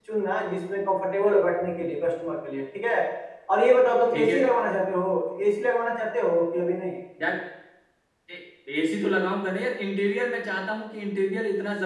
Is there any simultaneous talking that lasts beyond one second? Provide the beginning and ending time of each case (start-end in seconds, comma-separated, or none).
none